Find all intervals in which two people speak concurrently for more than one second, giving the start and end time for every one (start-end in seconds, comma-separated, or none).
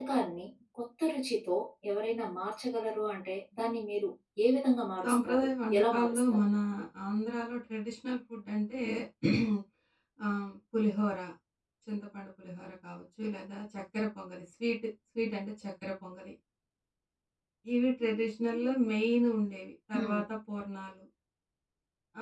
5.0-6.4